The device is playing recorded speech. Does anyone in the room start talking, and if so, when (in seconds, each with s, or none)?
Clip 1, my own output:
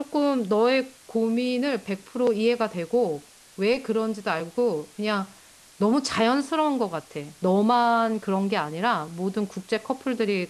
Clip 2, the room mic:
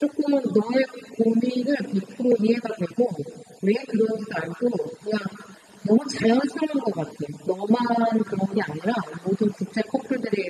none